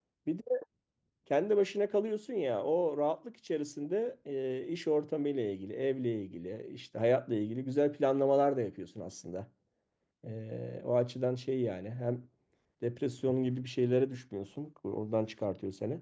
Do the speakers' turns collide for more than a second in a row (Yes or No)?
No